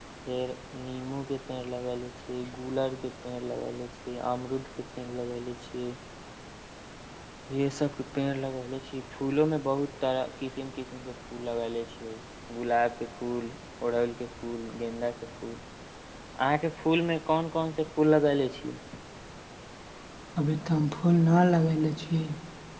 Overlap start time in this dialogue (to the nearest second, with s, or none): none